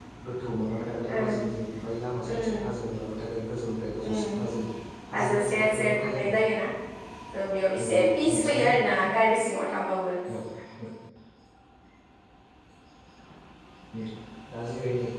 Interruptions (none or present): present